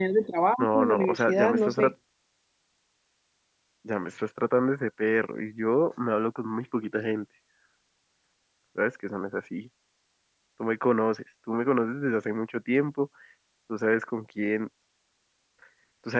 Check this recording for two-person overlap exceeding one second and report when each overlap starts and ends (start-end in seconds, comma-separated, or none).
0.6-1.9